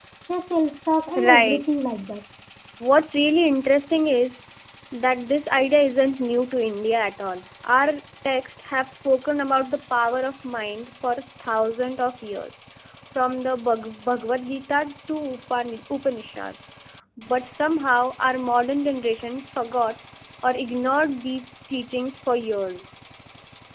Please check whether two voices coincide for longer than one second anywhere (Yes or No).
No